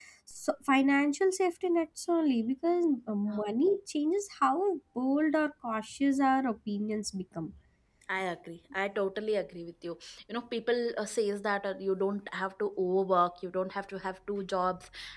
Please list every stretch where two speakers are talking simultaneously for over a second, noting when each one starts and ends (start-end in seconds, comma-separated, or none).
none